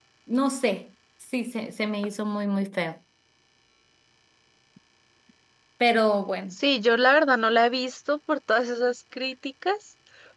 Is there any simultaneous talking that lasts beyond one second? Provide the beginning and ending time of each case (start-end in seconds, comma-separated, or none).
none